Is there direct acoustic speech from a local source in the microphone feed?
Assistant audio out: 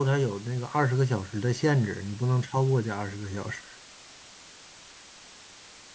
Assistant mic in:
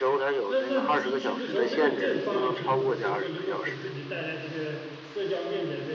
Yes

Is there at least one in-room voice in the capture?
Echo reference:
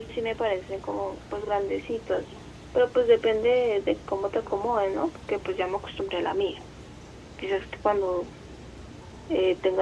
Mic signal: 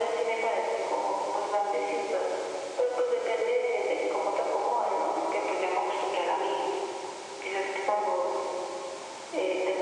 No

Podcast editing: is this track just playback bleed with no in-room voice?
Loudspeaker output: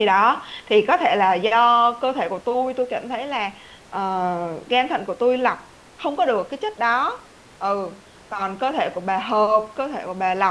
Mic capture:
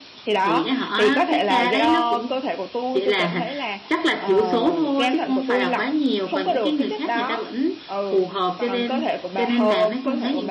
No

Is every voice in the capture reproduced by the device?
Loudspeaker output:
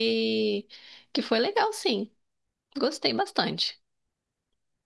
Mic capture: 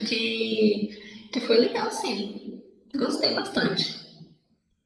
Yes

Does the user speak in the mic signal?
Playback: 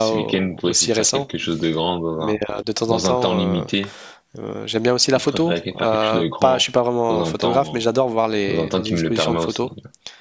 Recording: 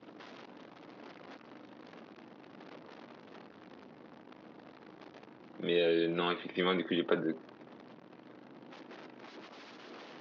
Yes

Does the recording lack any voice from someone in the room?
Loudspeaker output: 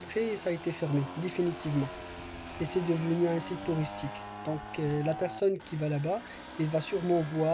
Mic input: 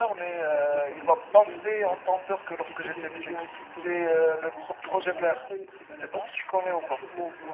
No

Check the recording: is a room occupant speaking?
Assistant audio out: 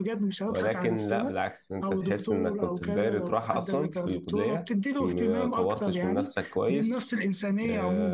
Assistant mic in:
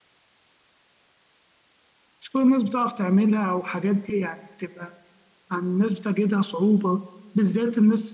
Yes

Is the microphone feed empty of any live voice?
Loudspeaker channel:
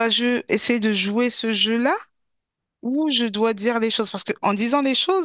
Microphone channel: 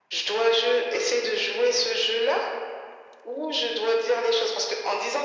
Yes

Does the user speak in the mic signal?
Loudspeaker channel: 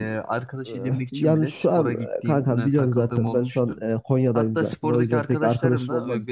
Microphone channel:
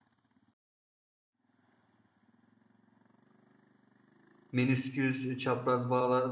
Yes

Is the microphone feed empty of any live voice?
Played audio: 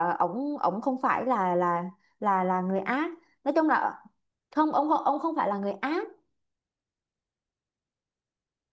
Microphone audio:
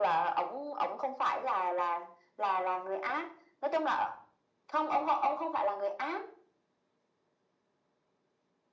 Yes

